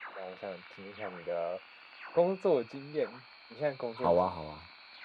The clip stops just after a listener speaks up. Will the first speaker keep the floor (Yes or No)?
No